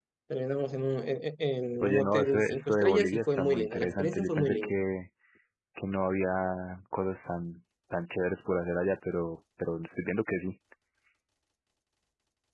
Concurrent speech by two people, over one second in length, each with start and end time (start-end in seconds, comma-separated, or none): 1.8-4.7